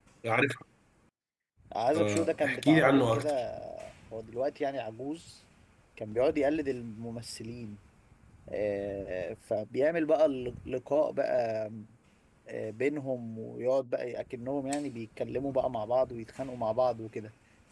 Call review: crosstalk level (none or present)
present